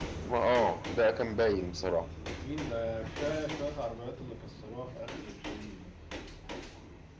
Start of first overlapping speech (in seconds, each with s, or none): none